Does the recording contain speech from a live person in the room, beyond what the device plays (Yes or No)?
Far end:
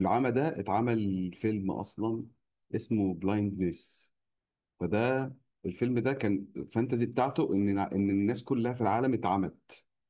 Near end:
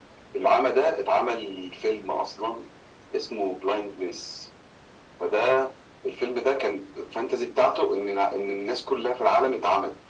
No